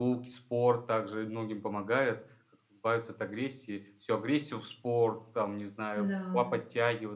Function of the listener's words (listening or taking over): listening